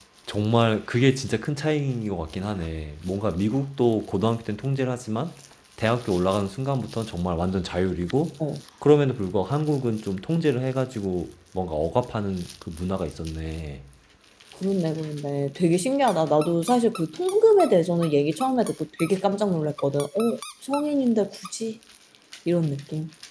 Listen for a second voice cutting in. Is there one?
No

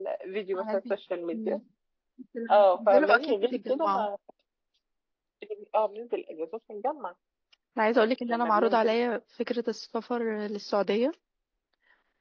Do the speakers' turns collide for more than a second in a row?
Yes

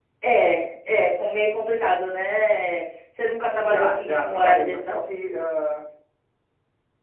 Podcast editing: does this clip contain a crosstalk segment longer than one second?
Yes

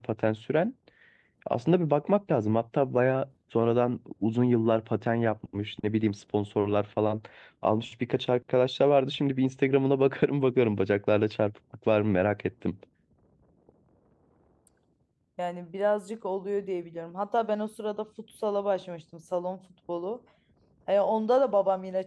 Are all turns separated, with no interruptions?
Yes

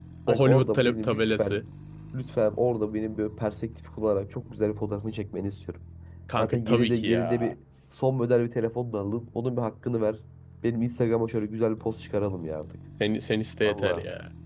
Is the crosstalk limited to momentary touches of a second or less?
No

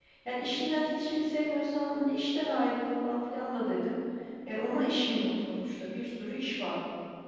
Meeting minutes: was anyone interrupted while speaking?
No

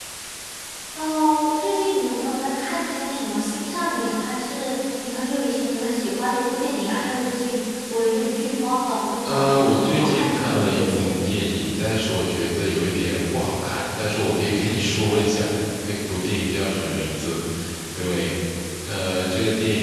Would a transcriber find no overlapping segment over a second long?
No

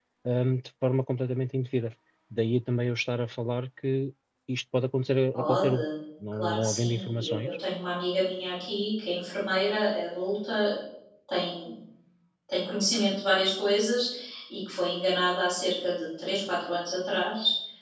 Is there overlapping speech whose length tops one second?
Yes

